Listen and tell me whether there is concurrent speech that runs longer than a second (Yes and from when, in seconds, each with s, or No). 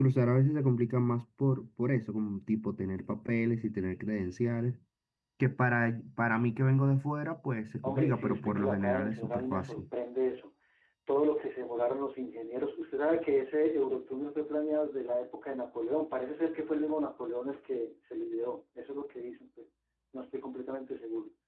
Yes, from 7.8 s